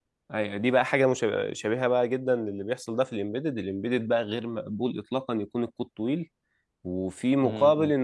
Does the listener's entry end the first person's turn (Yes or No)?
No